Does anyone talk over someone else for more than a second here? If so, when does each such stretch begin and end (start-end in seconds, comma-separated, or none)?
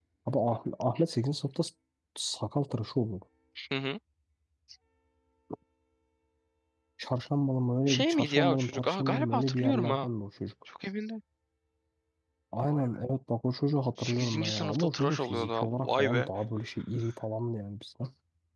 7.9-10.1, 14.0-16.3